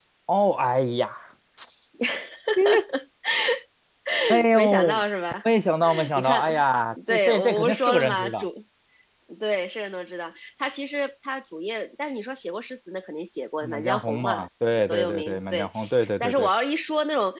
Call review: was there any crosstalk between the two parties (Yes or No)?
Yes